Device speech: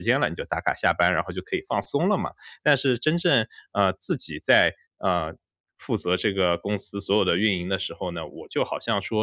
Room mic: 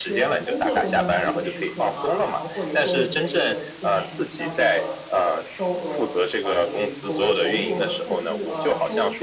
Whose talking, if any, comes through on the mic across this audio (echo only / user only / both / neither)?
both